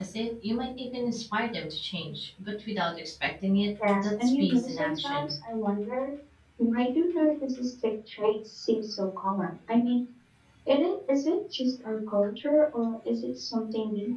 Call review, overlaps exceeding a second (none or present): present